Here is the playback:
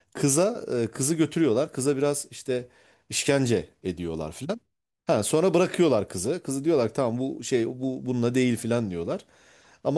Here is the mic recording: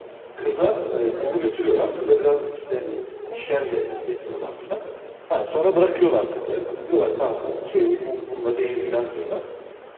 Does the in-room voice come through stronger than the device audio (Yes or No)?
No